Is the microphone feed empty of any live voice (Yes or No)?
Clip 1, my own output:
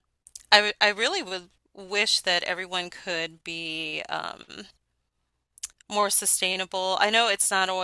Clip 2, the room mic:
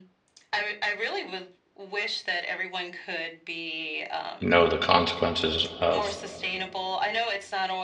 No